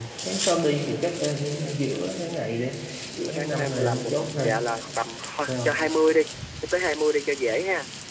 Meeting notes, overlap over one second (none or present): present